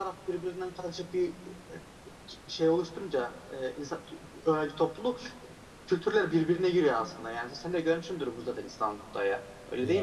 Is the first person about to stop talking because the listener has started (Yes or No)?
Yes